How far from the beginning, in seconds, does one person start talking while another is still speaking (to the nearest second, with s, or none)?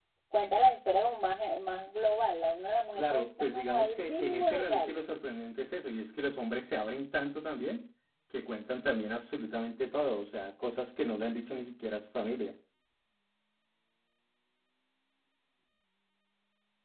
3 s